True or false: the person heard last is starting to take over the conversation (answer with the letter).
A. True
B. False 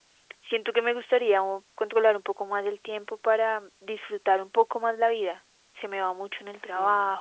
B